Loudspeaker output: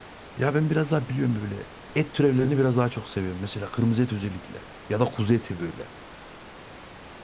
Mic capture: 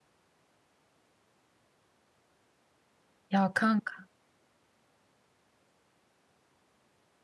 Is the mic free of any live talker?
No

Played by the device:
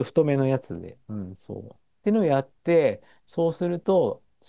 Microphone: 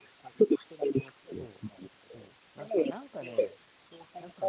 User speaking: Yes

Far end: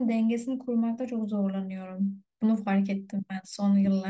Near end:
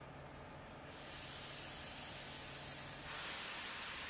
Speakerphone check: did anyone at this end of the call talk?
No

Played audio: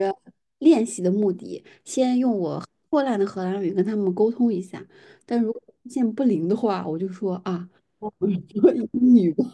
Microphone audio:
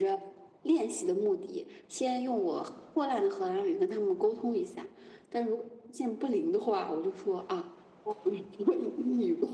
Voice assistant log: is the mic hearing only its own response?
Yes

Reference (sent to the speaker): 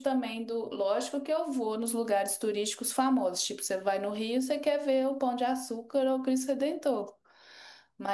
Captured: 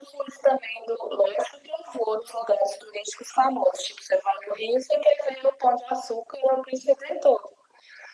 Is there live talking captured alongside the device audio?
No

